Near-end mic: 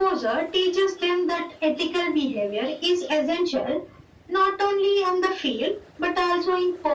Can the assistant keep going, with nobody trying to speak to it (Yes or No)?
Yes